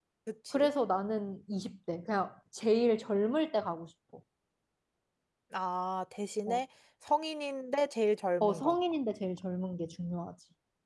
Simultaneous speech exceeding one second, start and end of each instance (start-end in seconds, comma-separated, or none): none